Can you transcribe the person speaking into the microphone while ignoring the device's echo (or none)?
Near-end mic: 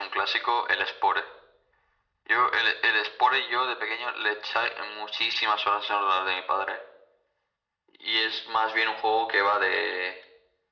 none